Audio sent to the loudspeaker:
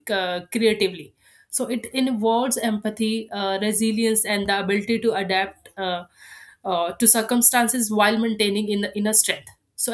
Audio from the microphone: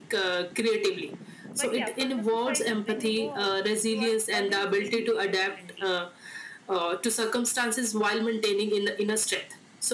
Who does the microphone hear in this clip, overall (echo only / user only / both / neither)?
both